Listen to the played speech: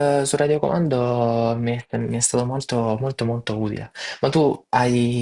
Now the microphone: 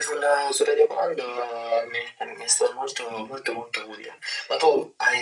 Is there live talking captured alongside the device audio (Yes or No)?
No